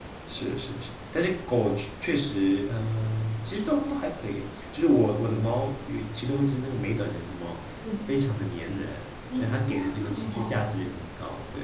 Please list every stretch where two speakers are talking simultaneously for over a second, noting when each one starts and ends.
9.3-10.6

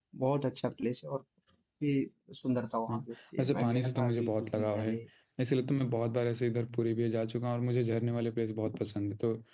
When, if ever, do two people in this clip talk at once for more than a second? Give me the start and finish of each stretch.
3.4-4.9

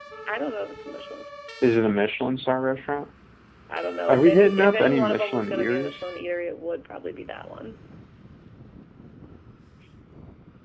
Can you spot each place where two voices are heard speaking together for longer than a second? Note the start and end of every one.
4.1-6.0

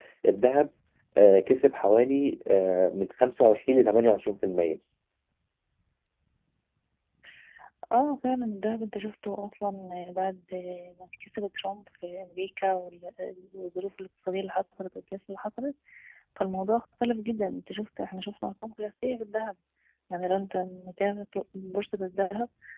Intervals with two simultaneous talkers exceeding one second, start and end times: none

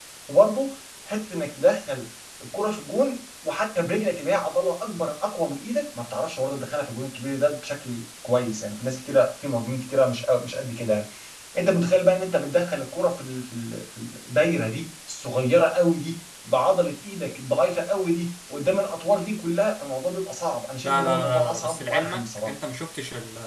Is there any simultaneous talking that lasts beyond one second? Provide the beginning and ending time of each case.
20.8-22.5

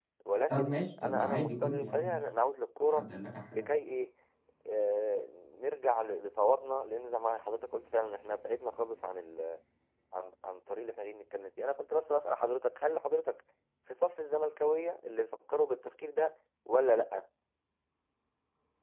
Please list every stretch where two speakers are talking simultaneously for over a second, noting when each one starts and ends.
0.5-2.2

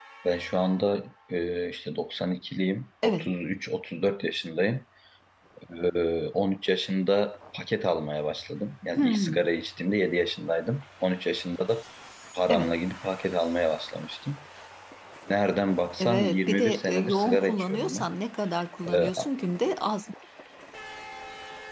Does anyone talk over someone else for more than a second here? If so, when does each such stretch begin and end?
16.0-18.1

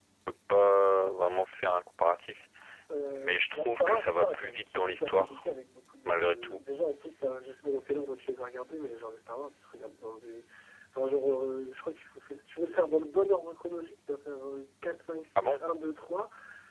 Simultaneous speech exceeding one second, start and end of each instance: 3.1-5.4

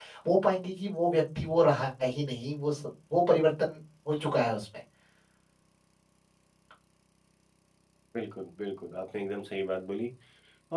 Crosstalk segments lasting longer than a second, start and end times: none

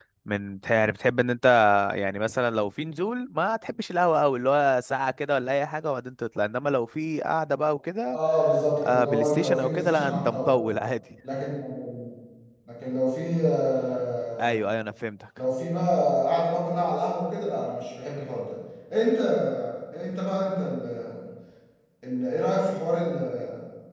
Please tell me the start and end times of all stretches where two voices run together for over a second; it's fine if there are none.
8.8-10.5

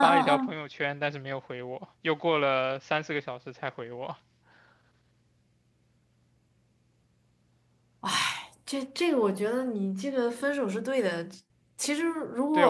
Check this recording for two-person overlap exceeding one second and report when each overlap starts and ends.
none

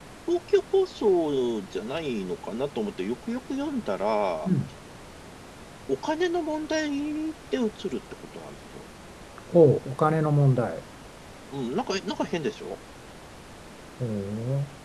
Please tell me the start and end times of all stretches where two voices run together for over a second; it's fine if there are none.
none

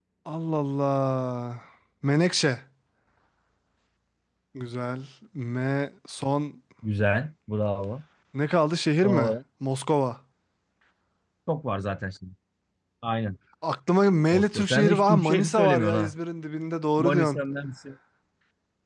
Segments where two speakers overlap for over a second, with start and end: 14.3-16.1

